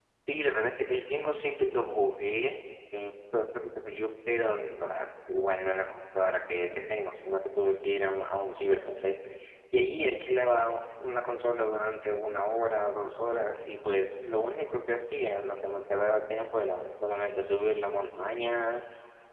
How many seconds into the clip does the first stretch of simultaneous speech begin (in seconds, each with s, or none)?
none